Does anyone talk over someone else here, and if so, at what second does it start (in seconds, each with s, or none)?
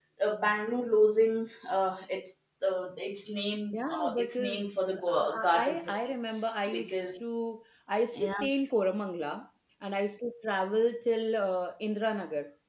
3.8 s